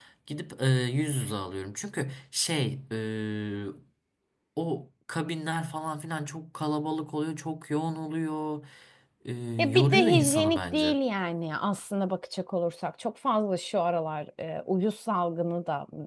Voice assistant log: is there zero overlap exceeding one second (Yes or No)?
No